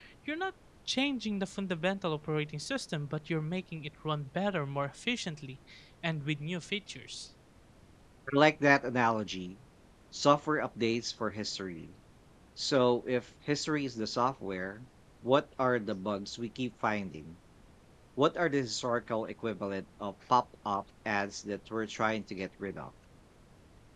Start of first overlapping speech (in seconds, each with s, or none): none